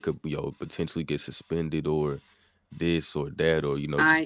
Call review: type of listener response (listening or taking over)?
listening